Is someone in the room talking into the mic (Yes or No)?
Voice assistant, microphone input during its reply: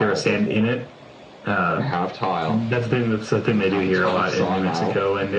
No